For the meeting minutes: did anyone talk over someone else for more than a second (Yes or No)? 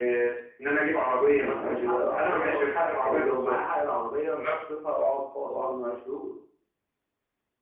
Yes